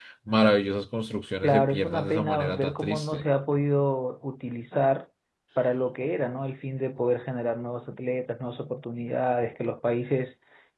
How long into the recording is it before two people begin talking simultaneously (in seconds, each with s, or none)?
1.4 s